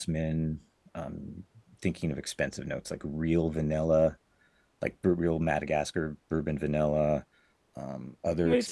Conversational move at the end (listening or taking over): taking over